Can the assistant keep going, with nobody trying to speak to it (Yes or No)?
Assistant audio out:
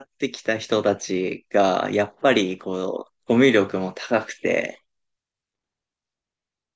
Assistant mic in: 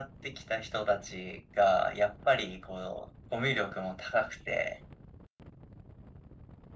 Yes